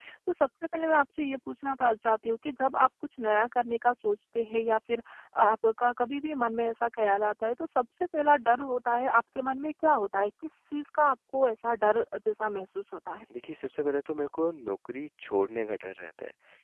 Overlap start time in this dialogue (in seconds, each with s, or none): none